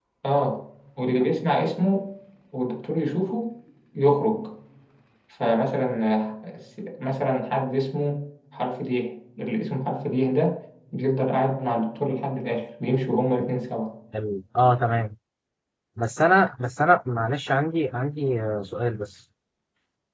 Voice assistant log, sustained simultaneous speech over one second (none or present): none